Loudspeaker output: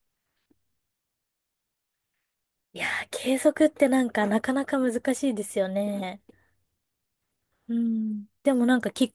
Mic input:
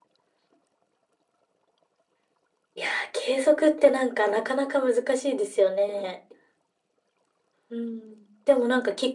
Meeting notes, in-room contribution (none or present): none